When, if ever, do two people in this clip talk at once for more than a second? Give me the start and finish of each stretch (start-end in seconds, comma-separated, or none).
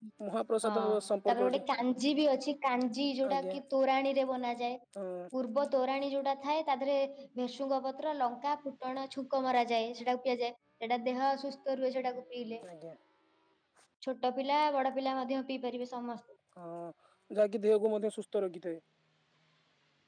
none